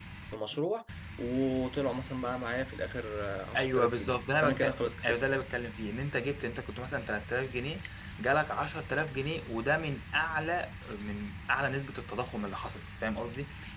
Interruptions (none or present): present